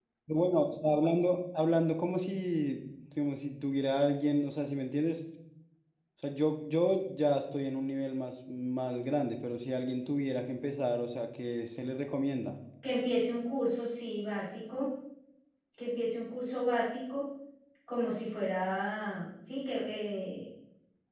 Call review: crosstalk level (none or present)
none